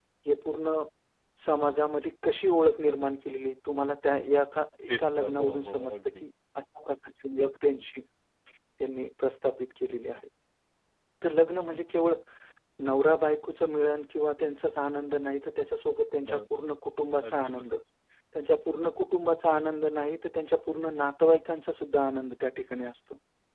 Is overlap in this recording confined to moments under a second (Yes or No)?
No